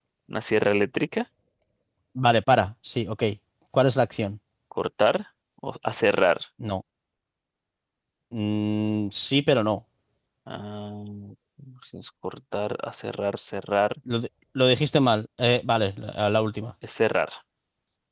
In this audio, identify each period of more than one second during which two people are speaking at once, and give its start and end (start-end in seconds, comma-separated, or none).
none